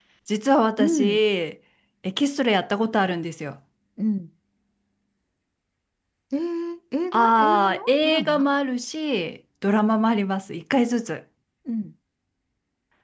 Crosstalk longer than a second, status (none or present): present